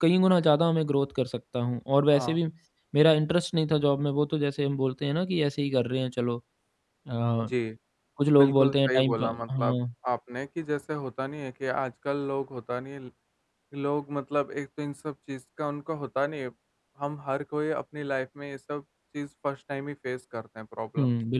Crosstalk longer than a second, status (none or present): present